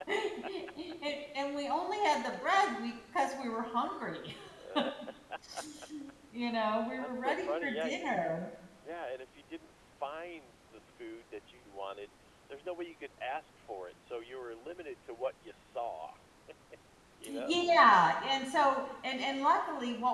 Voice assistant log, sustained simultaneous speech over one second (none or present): present